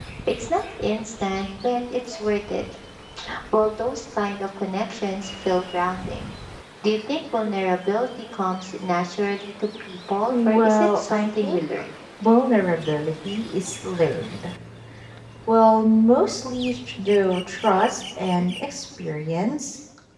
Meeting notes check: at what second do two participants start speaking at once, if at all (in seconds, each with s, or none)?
10.3 s